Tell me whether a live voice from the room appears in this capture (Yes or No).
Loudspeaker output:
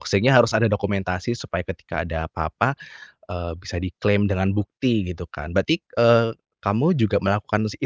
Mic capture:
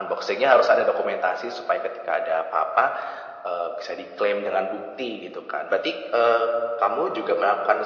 No